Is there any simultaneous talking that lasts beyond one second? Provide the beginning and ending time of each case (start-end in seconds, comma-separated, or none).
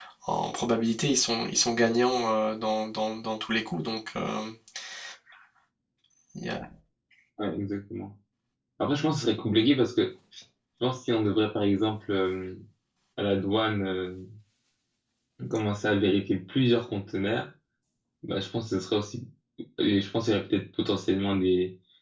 none